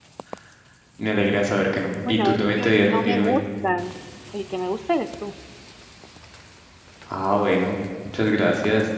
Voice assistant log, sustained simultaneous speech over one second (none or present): present